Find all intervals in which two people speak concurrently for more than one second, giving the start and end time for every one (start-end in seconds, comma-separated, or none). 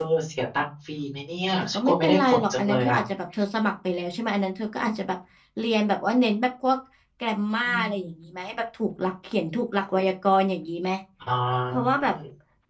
1.7-3.0